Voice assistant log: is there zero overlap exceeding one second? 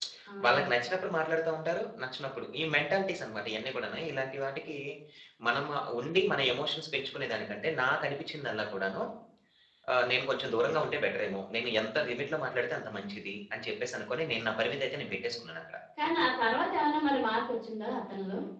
Yes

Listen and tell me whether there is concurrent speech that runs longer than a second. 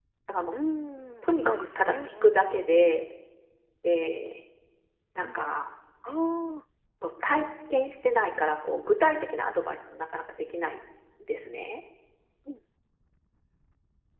Yes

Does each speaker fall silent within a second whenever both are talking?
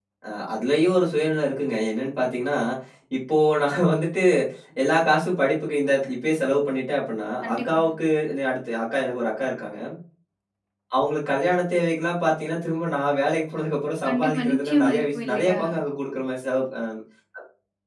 No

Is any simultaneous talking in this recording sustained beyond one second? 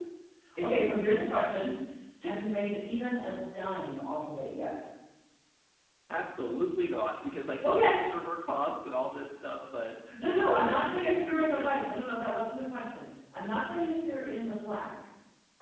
Yes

